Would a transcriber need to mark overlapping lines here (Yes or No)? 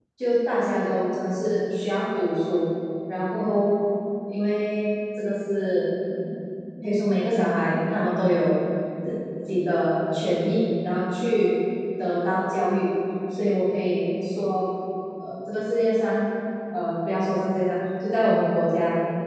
No